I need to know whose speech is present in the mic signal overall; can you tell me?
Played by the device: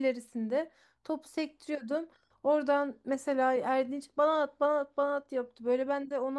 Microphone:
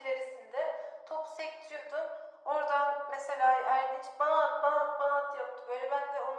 echo only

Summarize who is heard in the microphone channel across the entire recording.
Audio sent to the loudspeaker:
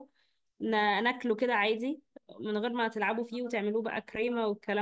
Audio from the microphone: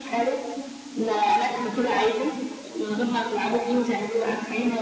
echo only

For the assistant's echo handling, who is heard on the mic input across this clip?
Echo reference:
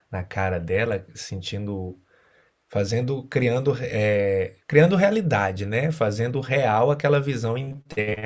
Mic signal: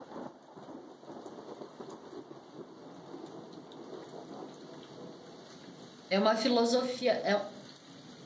user only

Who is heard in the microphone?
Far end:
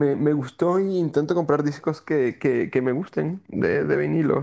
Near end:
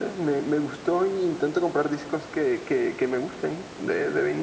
echo only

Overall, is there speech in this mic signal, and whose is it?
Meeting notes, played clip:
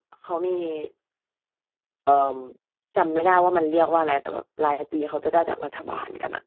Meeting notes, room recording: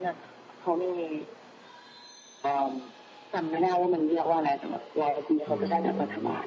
both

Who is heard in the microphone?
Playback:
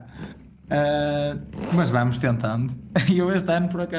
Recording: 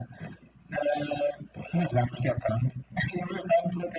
echo only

